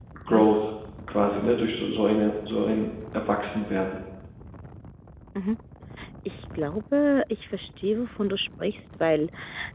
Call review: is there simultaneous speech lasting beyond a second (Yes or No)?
No